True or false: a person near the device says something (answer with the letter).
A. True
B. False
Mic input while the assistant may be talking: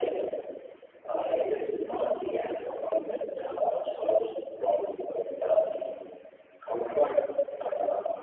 B